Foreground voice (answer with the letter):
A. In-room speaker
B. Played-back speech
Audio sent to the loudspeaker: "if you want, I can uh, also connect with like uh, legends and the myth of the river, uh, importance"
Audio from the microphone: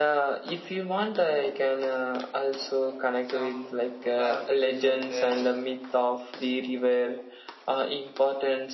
B